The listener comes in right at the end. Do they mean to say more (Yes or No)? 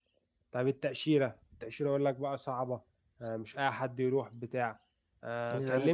No